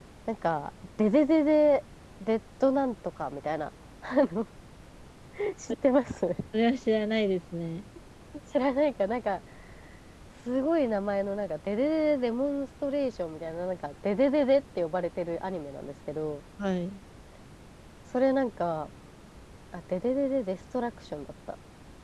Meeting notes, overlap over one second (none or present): none